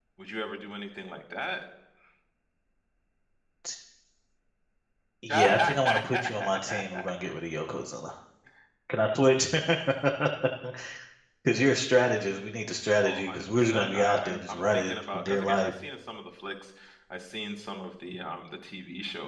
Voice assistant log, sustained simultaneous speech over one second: present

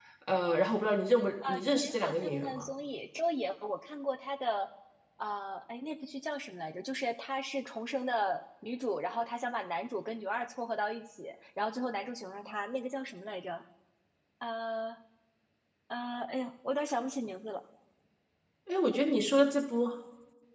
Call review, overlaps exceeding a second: present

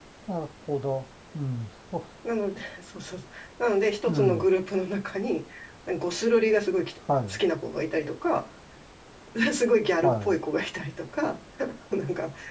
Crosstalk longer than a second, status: none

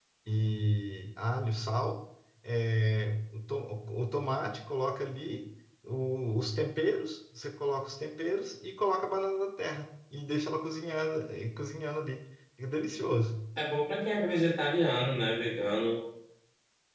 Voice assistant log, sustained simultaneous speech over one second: none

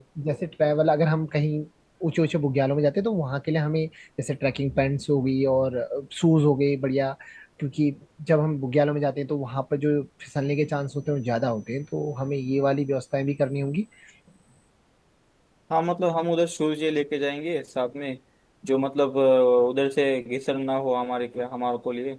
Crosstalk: none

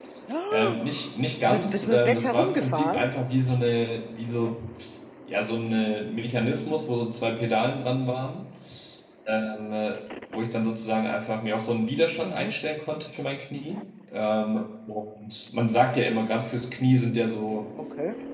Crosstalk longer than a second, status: present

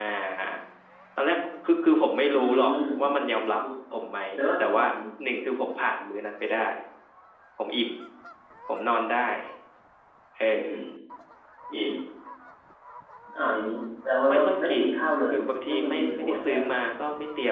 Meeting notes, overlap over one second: present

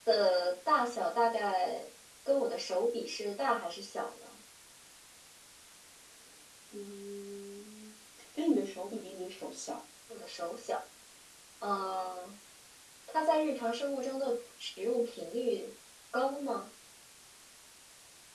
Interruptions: none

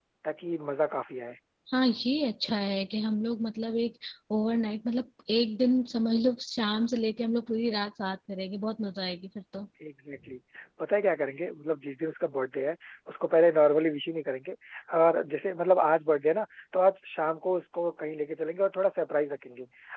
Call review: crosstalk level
none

